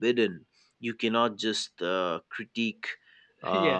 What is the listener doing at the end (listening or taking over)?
listening